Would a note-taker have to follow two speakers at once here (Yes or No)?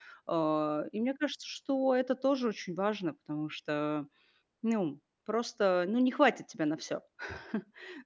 No